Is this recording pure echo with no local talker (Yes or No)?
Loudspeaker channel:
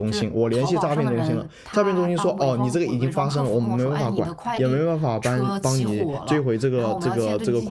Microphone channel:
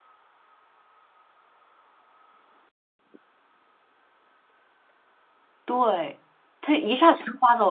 No